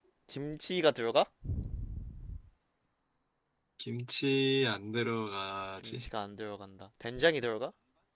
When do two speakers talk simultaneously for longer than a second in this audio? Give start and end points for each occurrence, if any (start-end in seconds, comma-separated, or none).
none